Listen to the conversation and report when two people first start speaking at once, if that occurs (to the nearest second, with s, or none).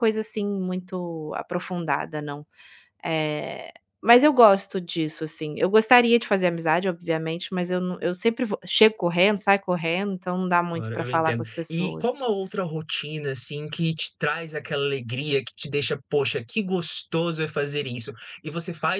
11 s